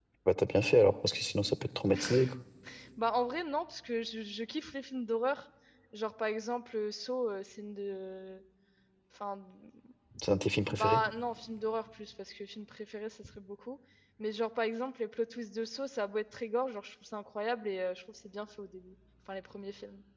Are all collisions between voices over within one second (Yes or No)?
Yes